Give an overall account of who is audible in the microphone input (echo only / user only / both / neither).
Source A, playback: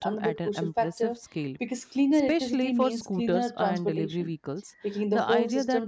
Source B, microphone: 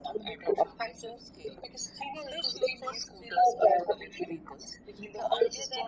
echo only